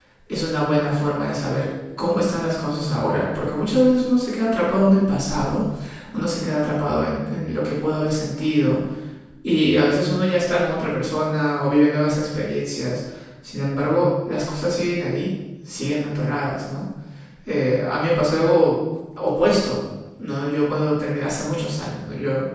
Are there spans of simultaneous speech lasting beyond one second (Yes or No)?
No